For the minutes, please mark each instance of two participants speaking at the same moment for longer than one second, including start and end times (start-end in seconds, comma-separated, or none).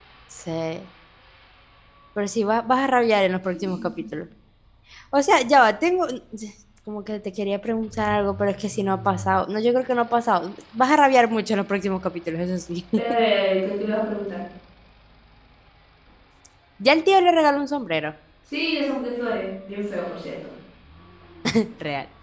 none